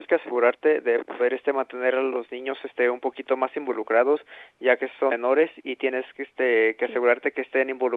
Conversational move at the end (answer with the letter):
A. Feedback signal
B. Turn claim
A